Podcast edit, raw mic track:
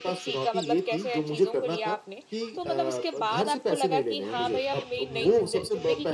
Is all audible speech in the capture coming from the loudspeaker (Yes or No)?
No